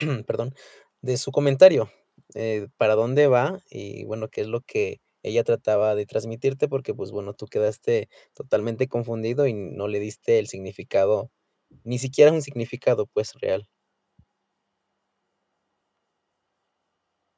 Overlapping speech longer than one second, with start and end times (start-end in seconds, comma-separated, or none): none